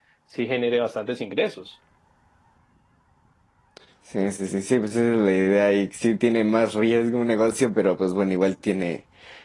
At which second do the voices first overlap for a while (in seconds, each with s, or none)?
none